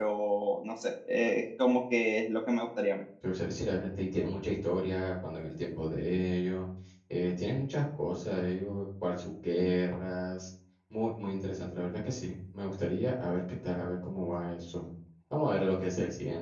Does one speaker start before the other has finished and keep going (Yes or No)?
No